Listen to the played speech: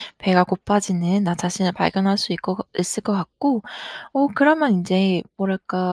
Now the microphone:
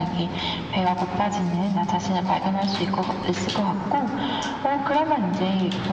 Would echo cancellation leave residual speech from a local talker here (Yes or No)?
No